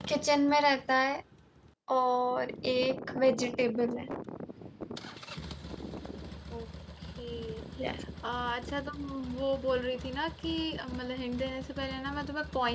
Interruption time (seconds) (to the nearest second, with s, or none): none